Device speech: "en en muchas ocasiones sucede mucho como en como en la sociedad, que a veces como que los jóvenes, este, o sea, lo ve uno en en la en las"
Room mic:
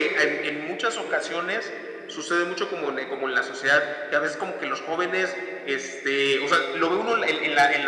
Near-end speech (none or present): none